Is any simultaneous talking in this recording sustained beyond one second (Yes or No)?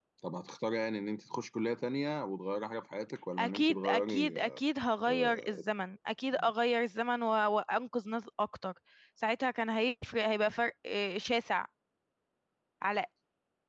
Yes